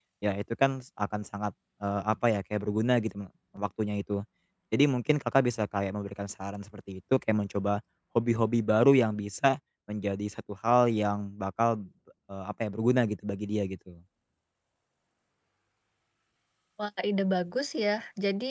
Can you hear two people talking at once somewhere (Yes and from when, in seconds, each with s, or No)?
No